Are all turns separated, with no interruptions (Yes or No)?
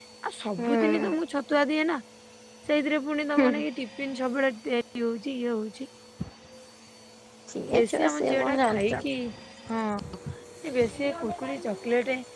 No